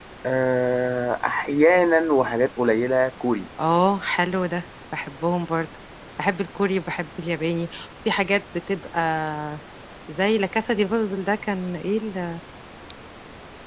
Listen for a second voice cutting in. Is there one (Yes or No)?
No